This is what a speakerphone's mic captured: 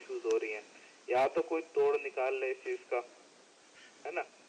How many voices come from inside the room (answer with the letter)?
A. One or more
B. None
B